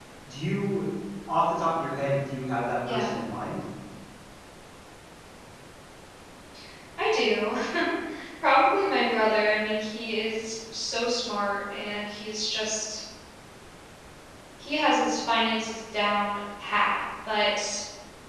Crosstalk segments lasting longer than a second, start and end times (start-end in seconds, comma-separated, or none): none